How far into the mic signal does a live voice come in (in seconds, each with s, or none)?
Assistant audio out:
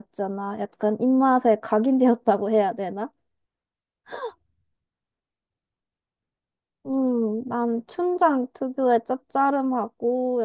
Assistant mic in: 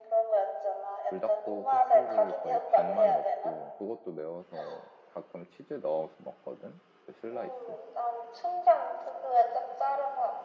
1.0 s